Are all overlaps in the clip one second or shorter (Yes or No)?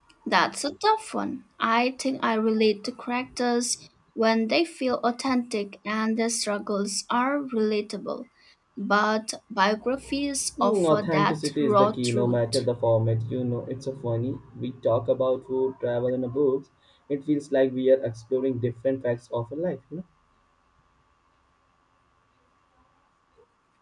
No